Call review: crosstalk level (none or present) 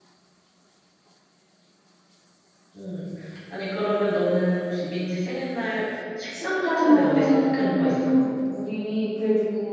present